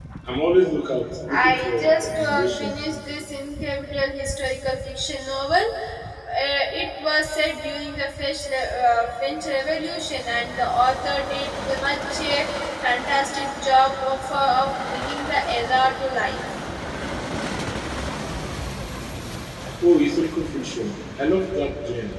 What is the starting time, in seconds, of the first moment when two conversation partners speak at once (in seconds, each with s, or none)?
1.3 s